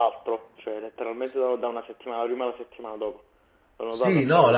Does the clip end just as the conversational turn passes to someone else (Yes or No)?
Yes